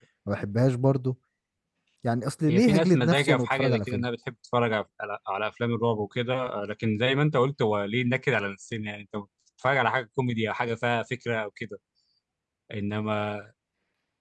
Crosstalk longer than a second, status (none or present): present